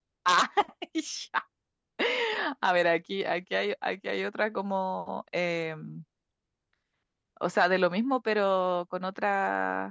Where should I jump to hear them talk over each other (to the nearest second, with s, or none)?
none